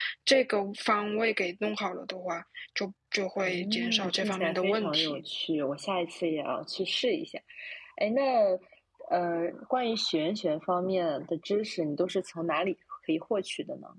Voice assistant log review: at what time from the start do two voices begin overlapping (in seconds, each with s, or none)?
3.4 s